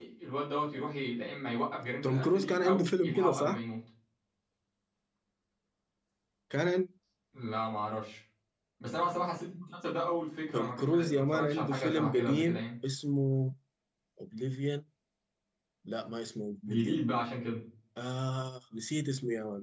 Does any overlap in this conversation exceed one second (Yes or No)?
Yes